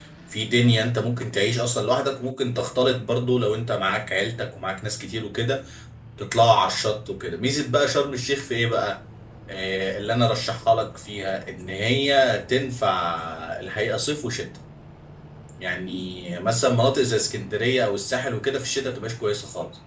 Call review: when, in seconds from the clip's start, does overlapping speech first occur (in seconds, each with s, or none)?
none